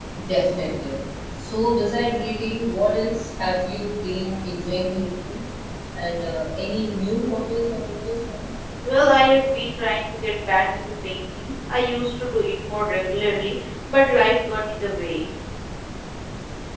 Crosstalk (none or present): none